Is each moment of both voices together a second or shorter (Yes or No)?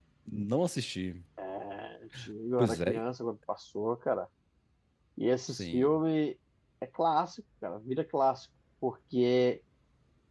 Yes